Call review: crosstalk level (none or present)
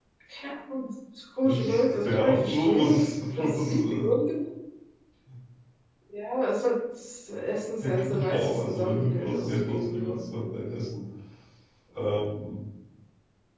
present